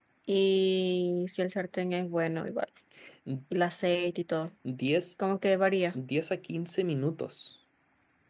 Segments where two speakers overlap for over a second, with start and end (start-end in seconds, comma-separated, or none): none